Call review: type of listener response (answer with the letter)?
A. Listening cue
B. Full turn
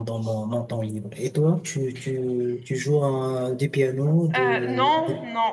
B